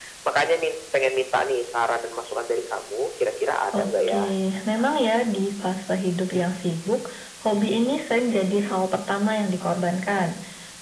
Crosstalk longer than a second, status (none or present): none